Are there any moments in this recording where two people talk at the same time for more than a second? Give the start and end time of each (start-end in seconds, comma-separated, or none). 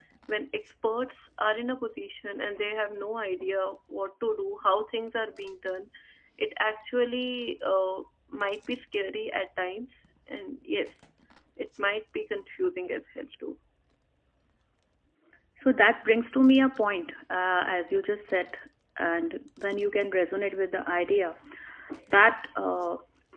none